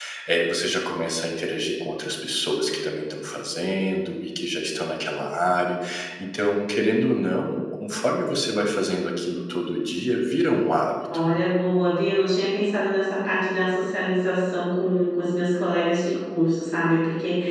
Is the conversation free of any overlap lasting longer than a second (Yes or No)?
Yes